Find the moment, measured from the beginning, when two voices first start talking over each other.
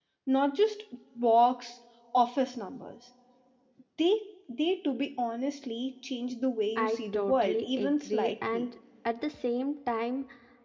6.8 s

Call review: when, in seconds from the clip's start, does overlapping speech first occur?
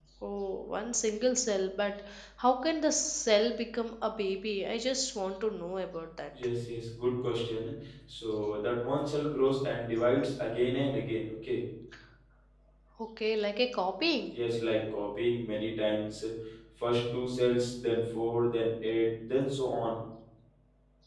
none

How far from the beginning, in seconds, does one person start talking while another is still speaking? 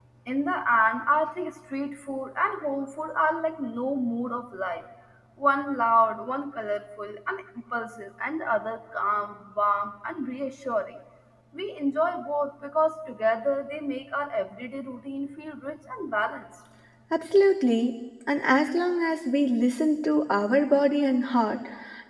none

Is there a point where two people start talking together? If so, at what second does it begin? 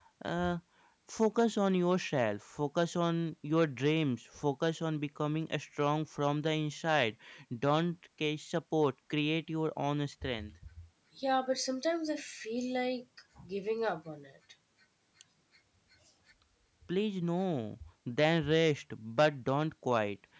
none

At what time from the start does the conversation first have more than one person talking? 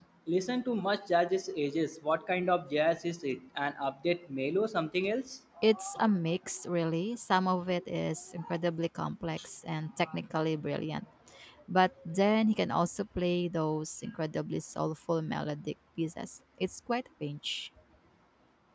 none

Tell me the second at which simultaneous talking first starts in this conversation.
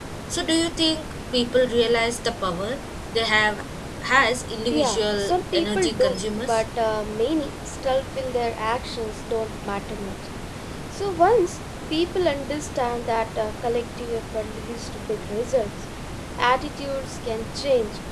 4.7 s

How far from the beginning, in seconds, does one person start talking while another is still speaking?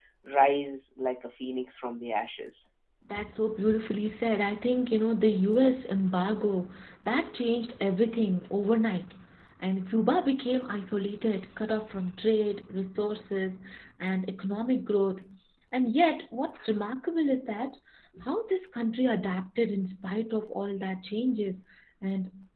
none

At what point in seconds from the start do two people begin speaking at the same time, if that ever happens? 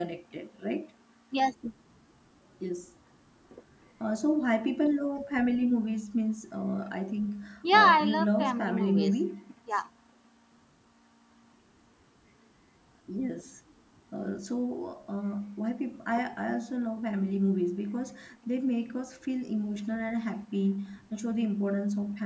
7.7 s

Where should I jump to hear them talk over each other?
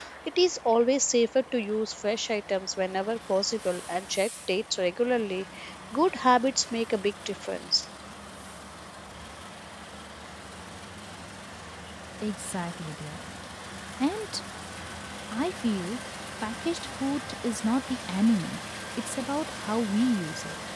none

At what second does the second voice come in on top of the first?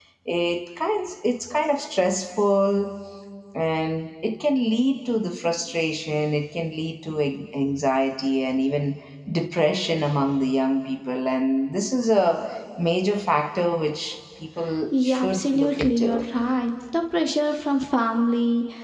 14.9 s

